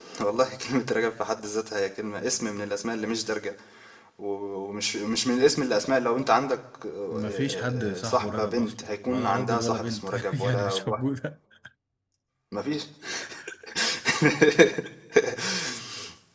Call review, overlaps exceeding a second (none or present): present